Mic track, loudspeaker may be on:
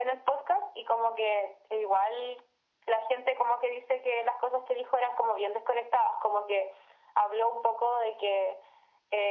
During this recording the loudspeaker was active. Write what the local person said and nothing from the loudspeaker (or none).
none